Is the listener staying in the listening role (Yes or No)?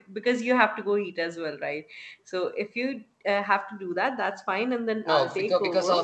No